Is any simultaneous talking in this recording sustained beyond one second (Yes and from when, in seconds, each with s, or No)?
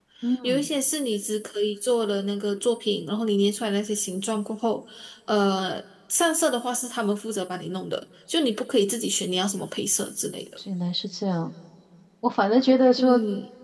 No